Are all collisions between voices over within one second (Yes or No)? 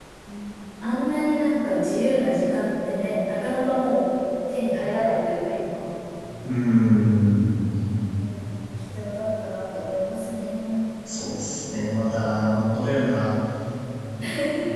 Yes